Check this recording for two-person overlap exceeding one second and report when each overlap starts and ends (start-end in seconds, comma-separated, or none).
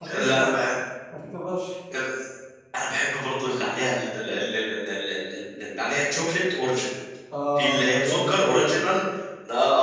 7.6-8.9